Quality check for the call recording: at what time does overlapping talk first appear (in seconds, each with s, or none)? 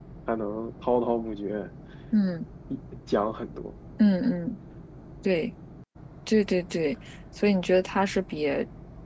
none